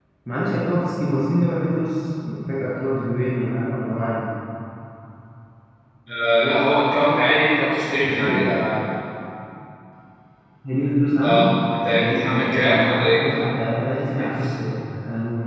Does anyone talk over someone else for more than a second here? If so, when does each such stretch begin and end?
12.0-13.3

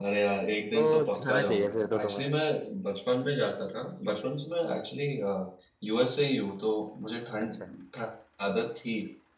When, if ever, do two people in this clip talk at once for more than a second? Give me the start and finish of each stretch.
0.8-2.2

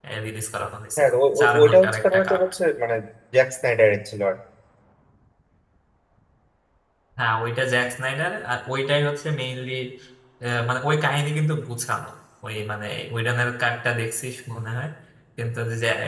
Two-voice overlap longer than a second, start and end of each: 1.0-2.4

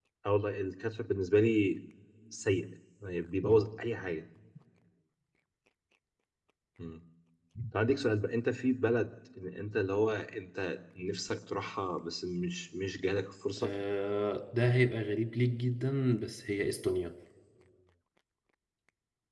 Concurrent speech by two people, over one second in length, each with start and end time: none

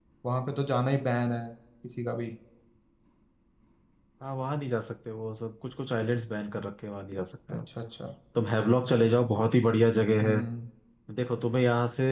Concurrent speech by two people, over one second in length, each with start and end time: none

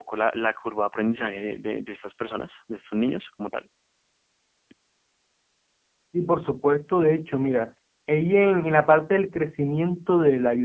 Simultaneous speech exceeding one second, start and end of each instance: none

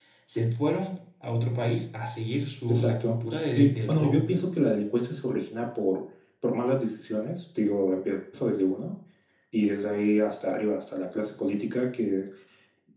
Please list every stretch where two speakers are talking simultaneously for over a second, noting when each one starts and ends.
2.7-4.3

